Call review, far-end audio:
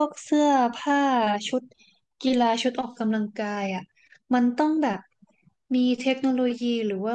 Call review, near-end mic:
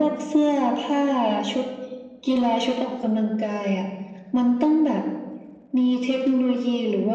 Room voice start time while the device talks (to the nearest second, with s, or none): none